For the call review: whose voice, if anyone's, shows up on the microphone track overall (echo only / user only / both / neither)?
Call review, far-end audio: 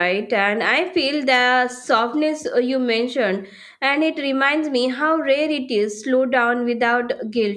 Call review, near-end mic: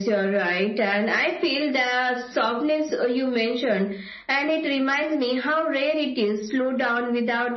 echo only